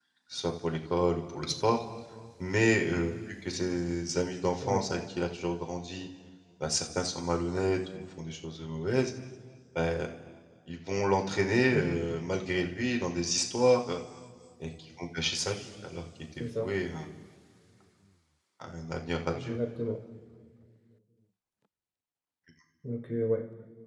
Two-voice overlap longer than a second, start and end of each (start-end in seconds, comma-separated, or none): none